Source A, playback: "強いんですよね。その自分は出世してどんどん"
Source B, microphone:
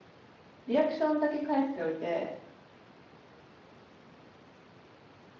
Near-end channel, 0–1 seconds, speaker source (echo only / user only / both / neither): user only